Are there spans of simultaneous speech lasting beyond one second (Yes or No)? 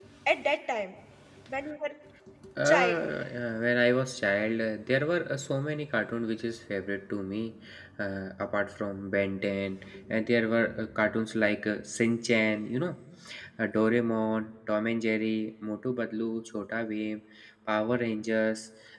No